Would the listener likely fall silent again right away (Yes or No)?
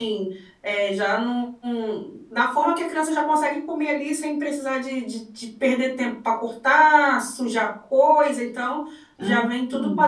Yes